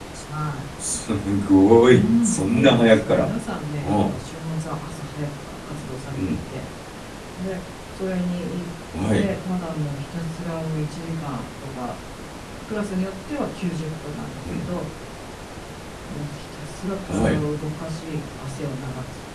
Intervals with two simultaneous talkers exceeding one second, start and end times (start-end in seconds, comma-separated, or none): 1.9-3.2